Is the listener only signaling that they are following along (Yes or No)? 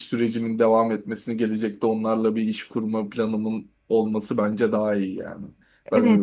No